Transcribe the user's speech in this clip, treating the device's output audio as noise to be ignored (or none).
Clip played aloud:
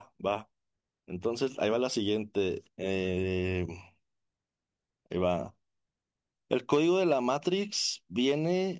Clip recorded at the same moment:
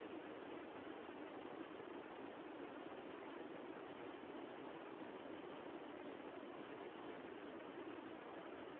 none